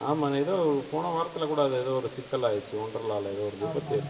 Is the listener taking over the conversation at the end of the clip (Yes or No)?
Yes